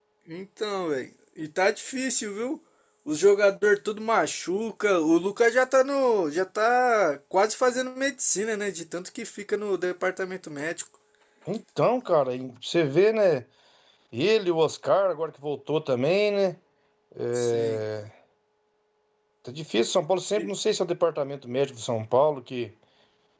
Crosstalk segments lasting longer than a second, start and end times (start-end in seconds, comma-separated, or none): none